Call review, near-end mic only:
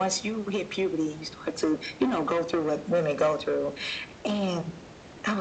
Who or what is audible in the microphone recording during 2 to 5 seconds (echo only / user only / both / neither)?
echo only